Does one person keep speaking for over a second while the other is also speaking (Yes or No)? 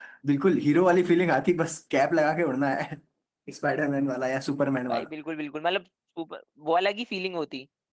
No